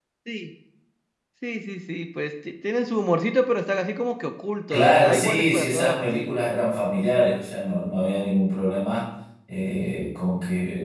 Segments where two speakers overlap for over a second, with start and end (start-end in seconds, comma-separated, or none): 4.7-6.4